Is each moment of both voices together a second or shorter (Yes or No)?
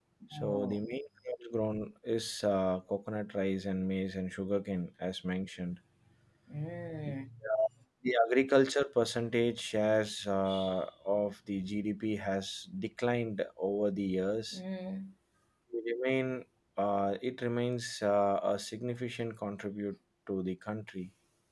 Yes